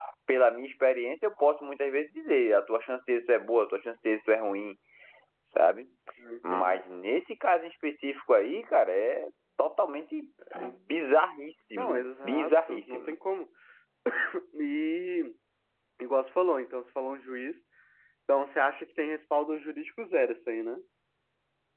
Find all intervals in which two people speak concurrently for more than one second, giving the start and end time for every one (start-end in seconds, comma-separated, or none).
11.8-13.2